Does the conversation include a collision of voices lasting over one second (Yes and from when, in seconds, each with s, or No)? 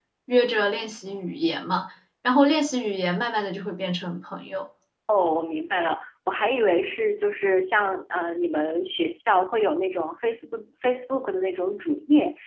No